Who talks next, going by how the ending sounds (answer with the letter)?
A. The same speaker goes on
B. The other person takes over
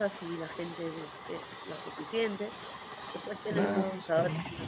A